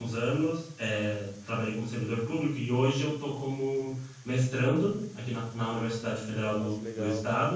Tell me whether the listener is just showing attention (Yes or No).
Yes